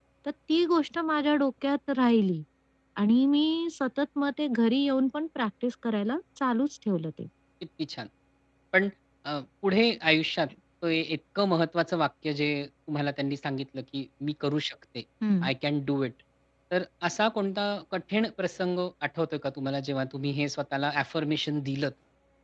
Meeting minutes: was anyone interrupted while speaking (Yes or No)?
No